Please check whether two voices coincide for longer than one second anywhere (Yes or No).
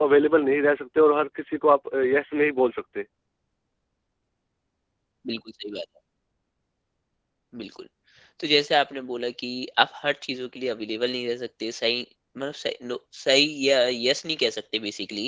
No